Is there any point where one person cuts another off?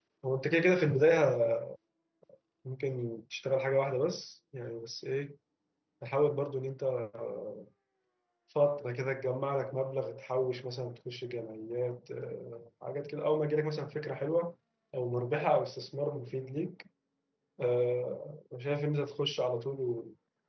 No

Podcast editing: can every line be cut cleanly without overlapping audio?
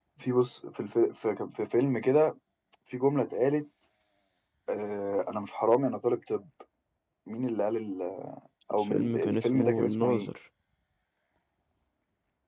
No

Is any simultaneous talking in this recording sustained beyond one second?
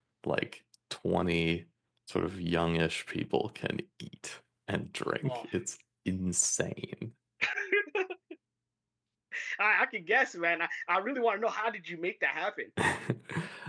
No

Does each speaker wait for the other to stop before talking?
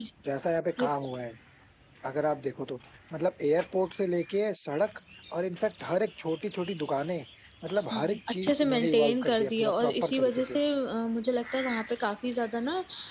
No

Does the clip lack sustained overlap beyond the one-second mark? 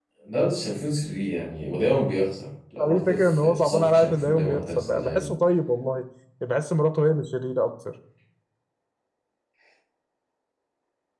No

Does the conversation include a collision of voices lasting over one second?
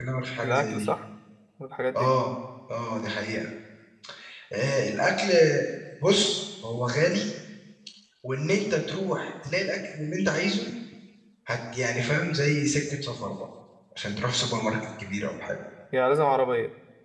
No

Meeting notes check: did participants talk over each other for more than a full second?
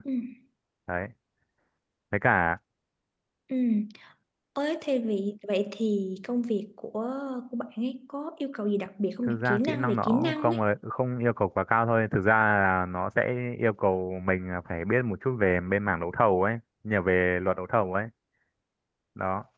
Yes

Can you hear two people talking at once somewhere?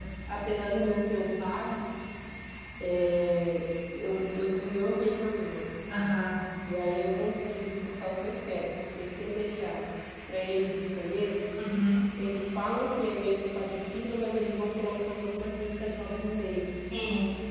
No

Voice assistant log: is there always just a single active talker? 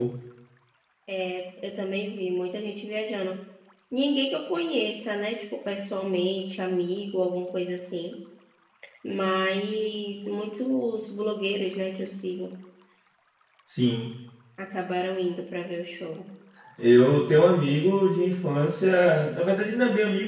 Yes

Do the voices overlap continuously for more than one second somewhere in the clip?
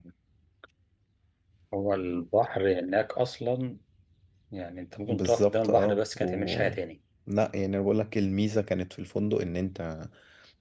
Yes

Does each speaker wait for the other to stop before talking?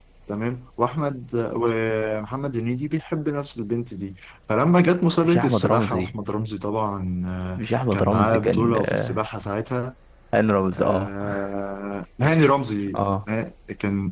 No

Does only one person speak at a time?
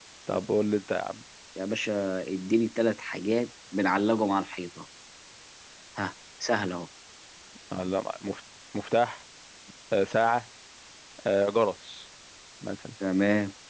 Yes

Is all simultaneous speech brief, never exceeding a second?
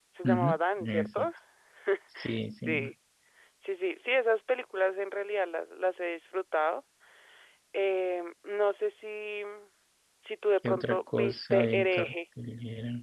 No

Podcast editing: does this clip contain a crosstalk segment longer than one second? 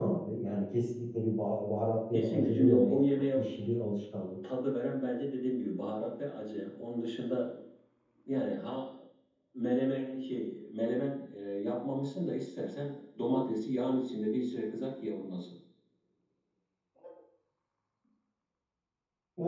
Yes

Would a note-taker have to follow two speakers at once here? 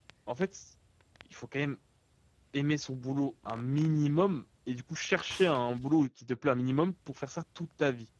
No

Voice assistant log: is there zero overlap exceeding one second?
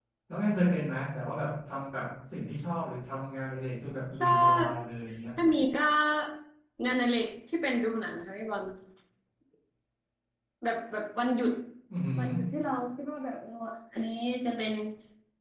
Yes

